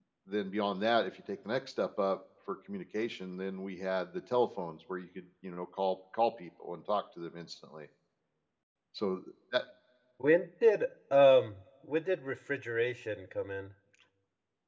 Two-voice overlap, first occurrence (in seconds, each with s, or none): none